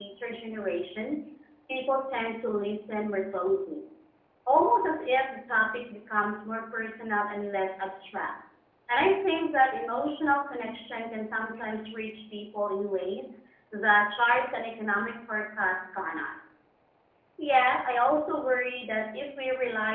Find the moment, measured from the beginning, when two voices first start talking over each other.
none

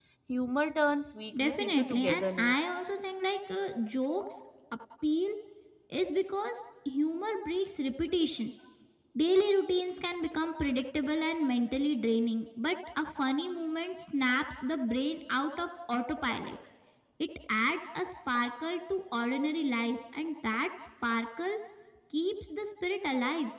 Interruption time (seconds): 1.3 s

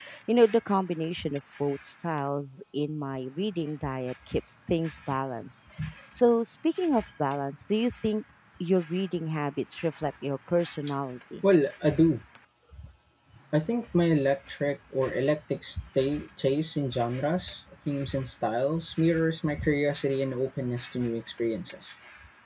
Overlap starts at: none

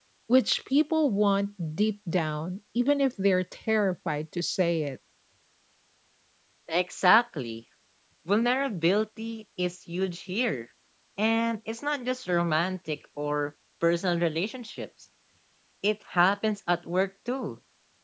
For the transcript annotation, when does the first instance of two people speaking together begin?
none

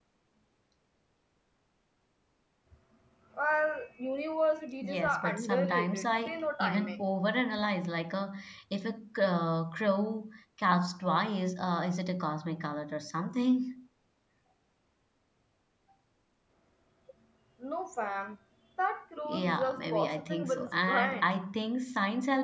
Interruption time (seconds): 4.8 s

